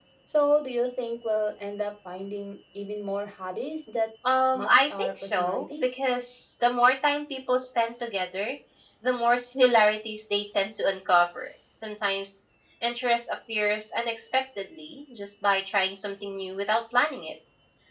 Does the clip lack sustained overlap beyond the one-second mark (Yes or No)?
No